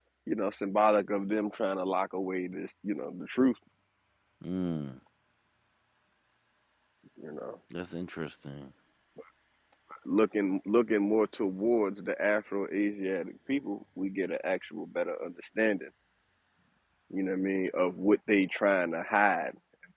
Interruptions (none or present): none